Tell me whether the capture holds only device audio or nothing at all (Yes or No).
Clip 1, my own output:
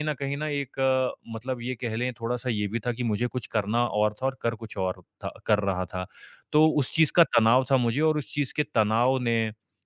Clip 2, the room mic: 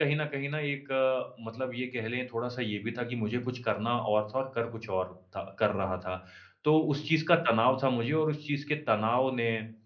Yes